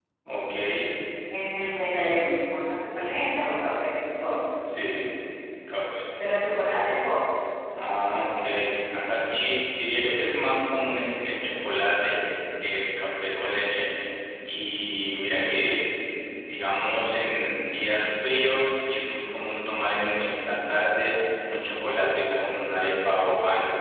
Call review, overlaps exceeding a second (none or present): none